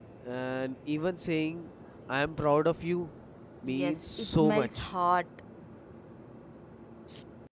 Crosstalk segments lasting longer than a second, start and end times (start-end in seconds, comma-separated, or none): 3.6-4.9